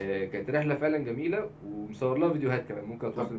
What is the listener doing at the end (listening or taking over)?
taking over